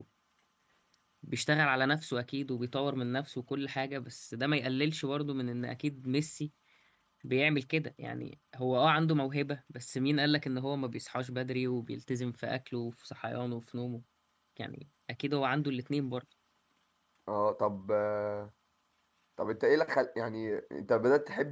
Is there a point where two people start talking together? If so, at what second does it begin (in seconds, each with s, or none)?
none